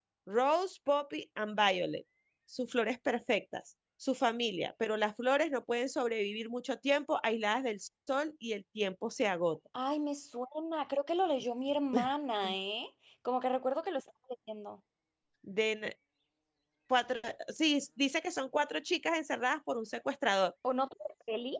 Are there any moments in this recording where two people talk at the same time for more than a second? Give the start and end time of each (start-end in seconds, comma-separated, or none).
none